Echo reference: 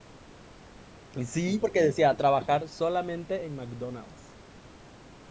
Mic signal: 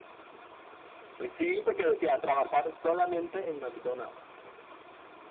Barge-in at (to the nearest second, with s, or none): none